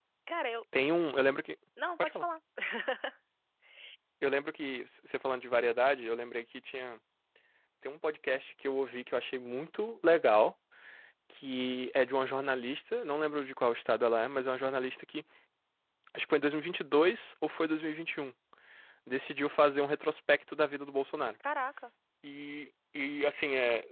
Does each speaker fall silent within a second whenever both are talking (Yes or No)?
Yes